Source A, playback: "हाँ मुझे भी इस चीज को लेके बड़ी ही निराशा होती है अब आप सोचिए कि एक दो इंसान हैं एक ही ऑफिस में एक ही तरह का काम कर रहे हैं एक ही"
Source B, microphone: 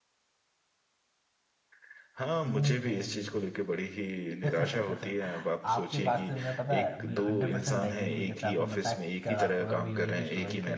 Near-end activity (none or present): present